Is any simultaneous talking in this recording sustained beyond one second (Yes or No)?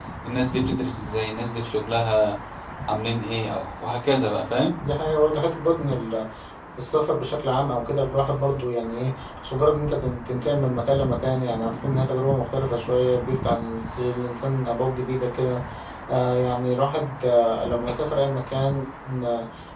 No